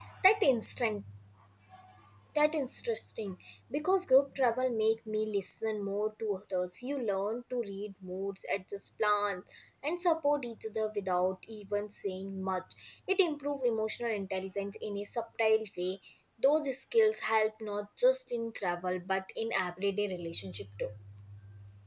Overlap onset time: none

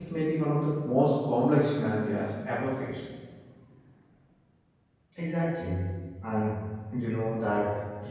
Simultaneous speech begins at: none

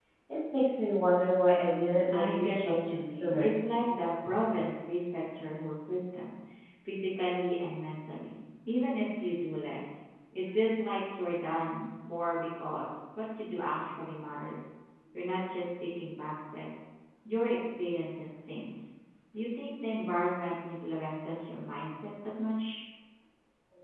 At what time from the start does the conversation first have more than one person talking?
2 s

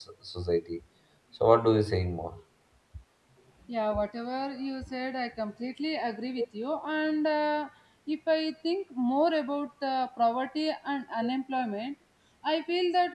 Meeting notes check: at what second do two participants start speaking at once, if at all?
none

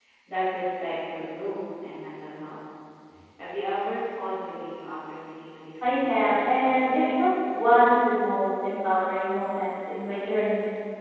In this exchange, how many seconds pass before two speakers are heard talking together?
6 s

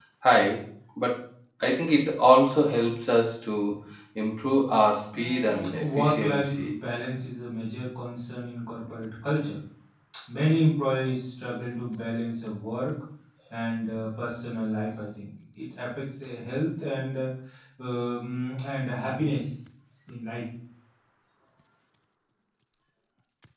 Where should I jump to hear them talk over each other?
5 s

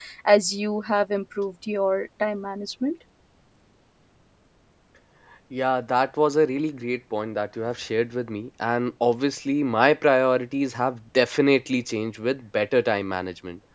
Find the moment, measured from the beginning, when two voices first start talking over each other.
none

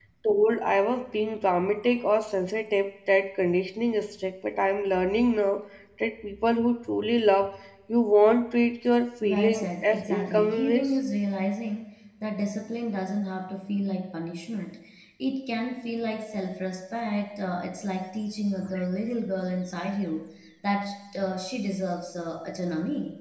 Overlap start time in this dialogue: 9 s

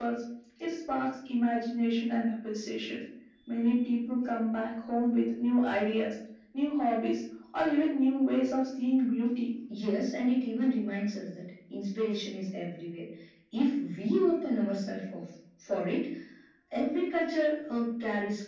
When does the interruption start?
none

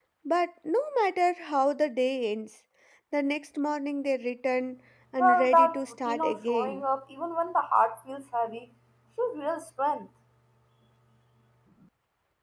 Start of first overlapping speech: 5 s

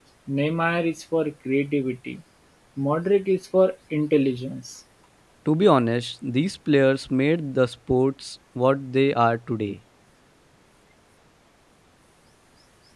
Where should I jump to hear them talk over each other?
none

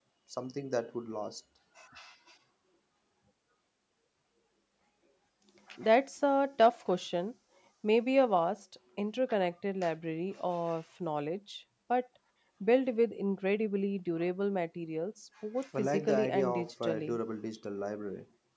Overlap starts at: 16 s

